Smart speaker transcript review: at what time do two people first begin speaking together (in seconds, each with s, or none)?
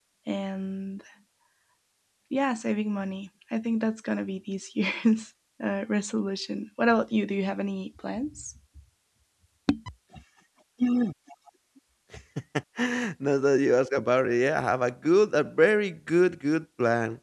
none